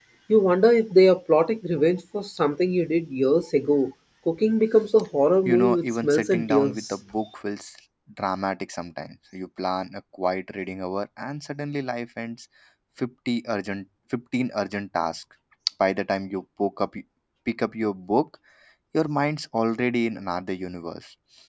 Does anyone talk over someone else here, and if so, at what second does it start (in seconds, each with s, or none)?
5.5 s